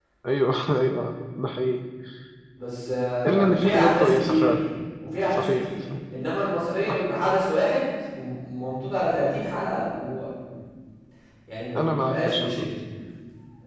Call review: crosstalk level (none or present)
present